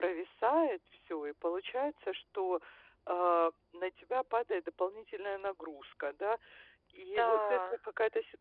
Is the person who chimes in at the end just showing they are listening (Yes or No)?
Yes